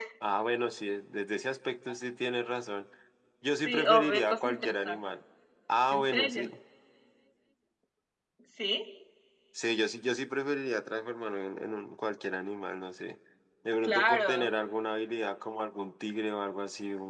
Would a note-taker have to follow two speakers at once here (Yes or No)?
Yes